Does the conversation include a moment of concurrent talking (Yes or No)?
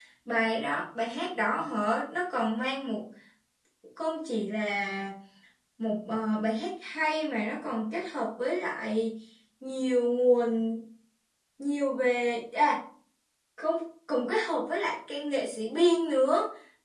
No